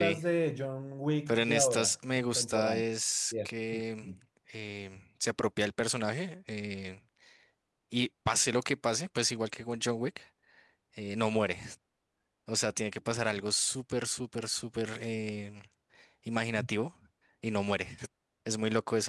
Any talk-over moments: Yes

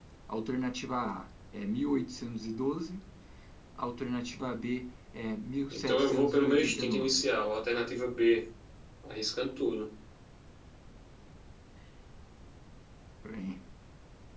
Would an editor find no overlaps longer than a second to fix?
No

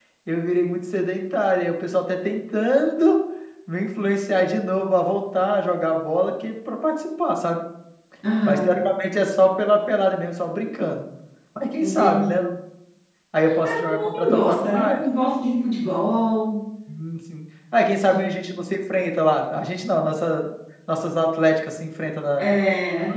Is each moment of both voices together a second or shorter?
No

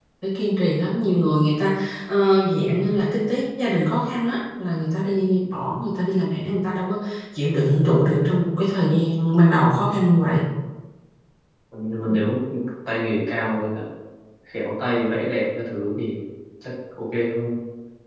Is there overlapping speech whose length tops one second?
No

